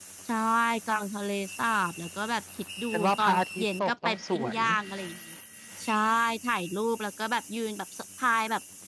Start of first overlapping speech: 3 s

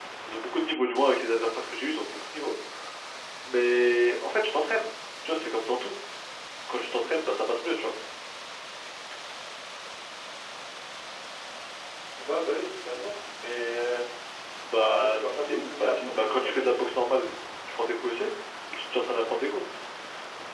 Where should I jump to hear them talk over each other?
15 s

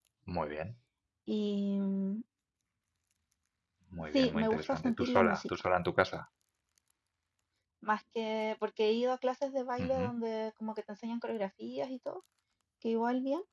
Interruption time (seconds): 4 s

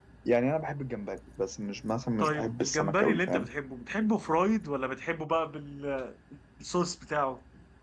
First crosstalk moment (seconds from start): 2 s

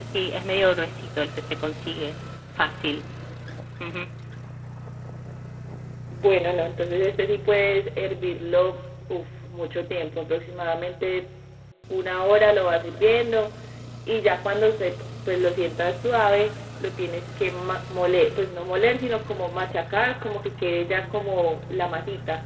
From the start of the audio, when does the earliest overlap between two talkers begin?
none

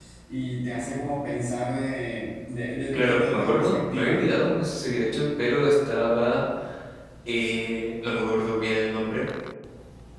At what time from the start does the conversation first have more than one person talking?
3 s

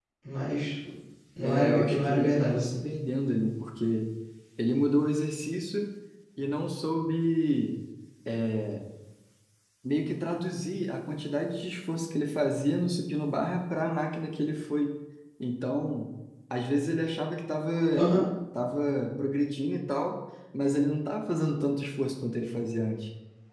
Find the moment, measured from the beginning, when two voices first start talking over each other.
1 s

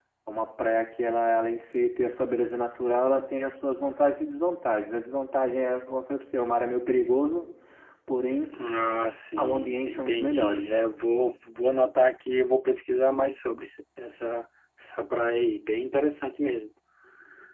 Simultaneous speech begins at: 9 s

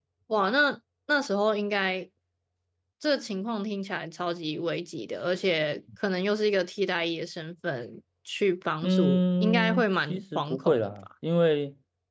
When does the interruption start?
9 s

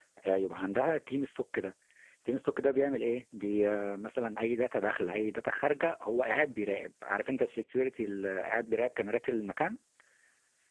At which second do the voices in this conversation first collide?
none

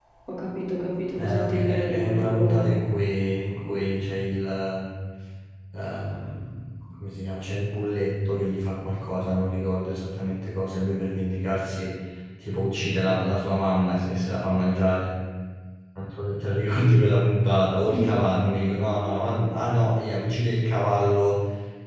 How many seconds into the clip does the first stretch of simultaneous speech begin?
1 s

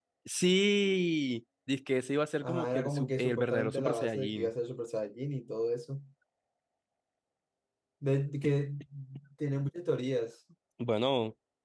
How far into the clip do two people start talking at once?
2 s

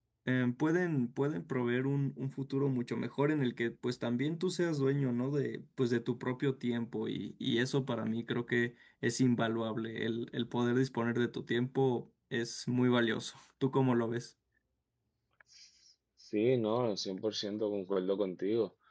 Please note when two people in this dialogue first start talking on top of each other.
none

